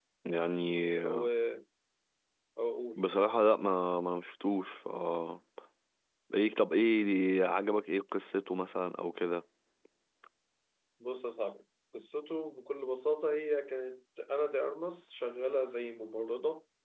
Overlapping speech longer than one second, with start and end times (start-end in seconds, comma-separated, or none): none